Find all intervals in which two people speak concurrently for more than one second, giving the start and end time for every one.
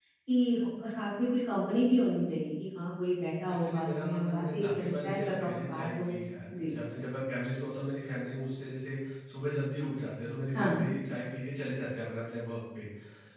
3.6-6.1

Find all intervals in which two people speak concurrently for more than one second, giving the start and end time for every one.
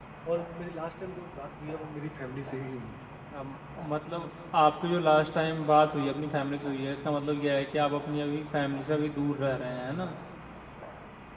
none

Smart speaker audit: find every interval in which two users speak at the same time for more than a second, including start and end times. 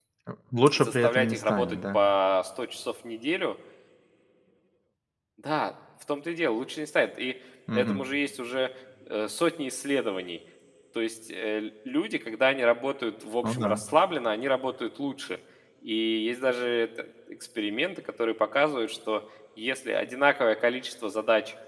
0.8-2.0

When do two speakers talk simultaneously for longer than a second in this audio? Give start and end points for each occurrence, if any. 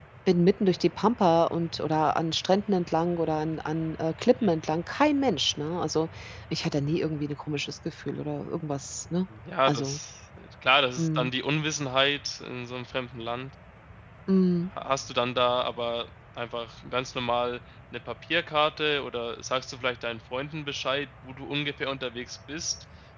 none

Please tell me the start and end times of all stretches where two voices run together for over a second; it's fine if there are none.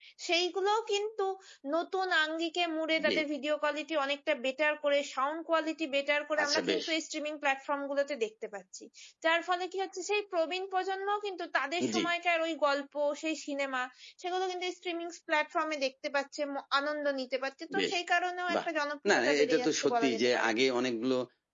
19.1-20.5

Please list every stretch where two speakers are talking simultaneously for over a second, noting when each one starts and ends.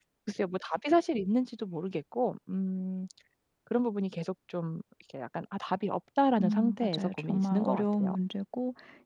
6.4-8.2

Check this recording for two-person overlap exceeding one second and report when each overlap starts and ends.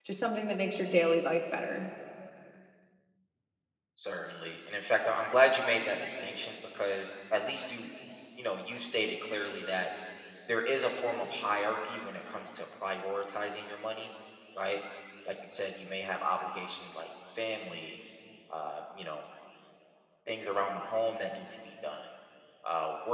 none

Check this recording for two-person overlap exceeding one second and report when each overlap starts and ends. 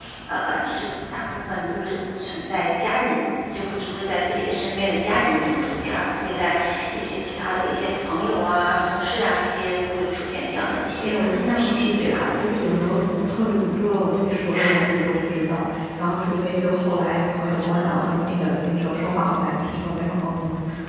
11.0-12.2

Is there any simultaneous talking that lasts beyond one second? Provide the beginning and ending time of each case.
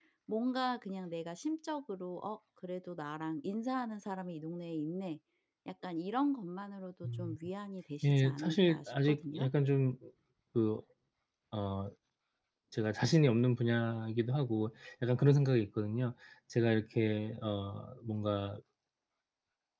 8.0-9.5

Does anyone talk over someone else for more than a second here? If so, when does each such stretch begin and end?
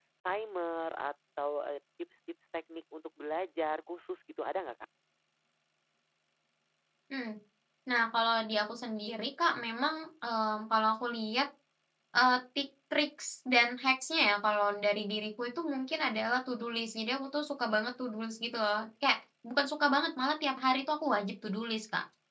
none

